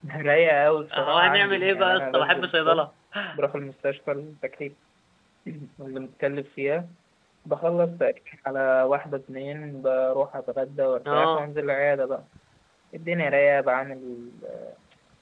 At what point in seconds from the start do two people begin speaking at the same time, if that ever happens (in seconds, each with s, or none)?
0.9 s